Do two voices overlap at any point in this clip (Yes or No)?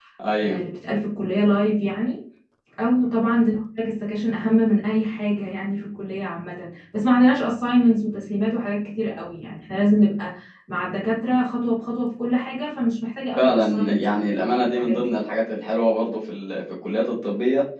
Yes